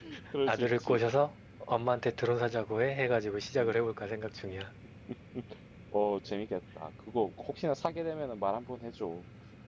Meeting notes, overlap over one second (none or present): none